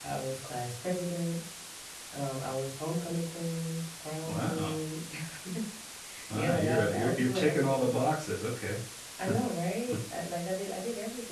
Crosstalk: present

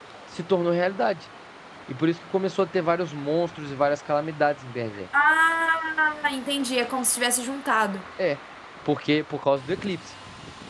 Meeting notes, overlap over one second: none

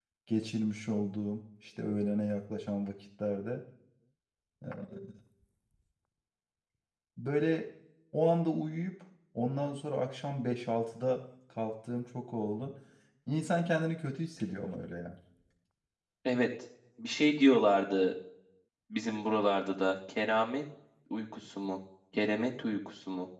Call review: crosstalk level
none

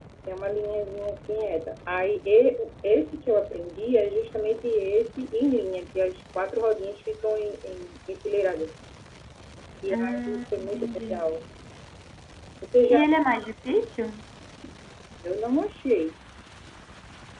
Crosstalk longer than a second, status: present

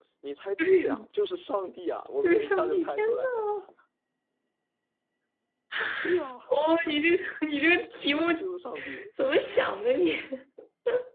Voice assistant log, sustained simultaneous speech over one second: present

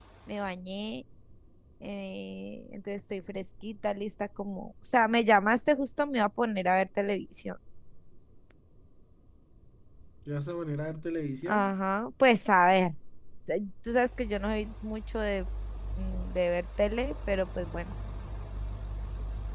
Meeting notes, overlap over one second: none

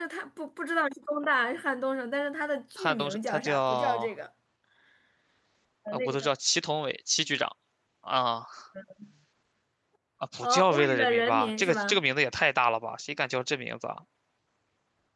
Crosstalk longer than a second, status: present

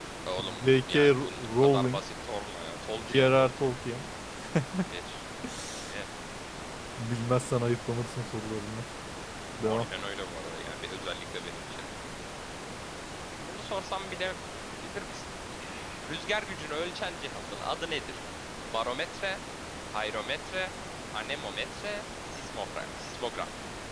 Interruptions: present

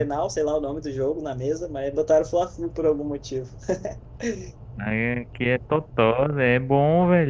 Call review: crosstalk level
none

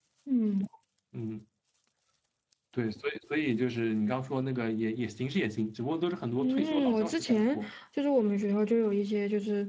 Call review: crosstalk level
present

